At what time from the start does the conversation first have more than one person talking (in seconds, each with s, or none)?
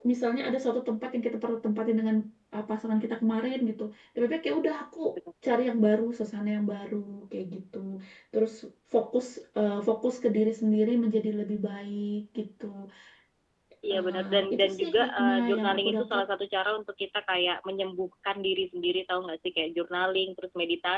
13.9 s